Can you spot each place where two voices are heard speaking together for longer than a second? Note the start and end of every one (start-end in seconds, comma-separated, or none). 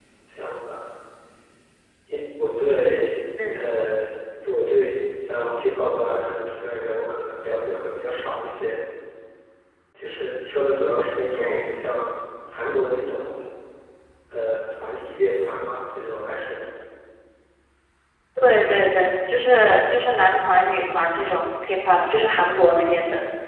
none